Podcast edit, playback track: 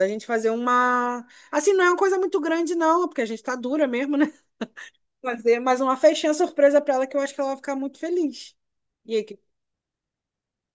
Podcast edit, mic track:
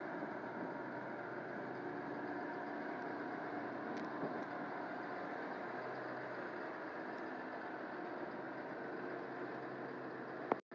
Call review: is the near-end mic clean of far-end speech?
Yes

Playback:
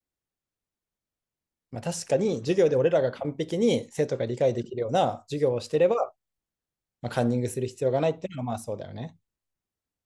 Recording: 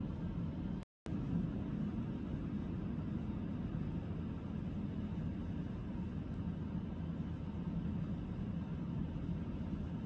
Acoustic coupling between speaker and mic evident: No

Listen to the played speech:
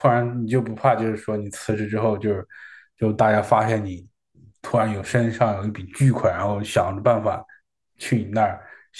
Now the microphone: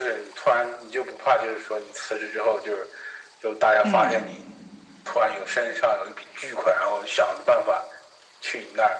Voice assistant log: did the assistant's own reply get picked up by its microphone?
Yes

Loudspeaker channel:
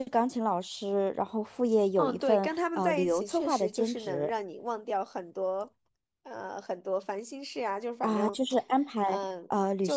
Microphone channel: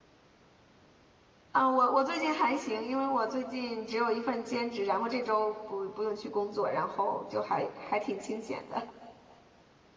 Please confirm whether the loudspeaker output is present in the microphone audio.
No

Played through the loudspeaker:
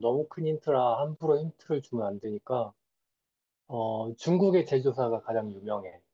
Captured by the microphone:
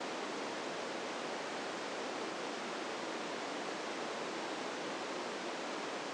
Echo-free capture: Yes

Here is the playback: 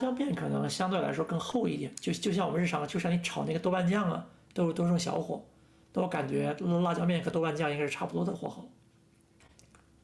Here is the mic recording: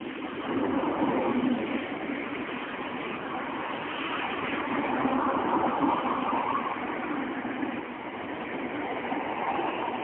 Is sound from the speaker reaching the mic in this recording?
No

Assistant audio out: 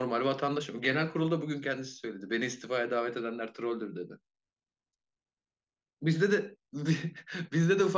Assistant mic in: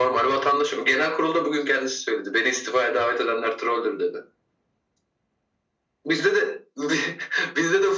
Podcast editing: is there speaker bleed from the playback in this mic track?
Yes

